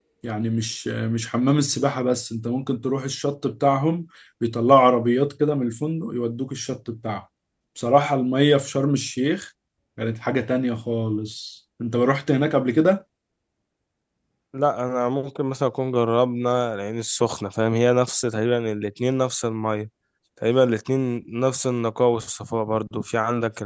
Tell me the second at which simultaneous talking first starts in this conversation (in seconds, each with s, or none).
none